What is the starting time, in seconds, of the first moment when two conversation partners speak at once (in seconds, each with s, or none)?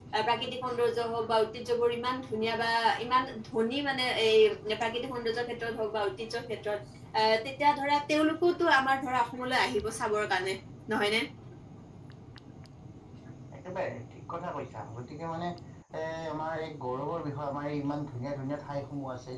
none